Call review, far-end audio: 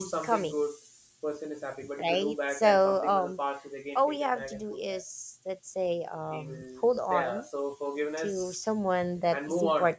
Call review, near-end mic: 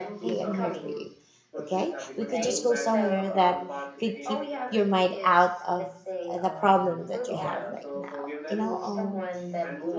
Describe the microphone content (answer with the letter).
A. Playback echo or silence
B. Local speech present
B